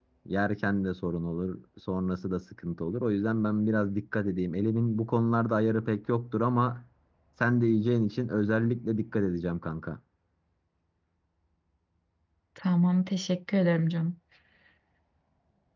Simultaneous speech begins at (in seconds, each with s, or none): none